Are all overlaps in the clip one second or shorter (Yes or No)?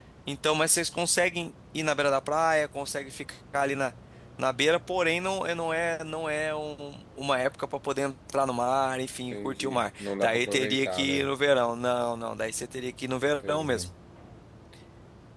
No